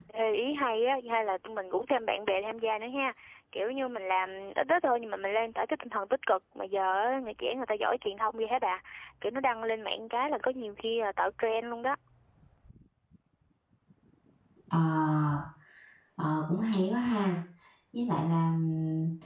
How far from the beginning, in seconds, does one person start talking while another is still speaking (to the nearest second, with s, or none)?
none